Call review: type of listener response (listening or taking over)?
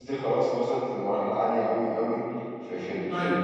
taking over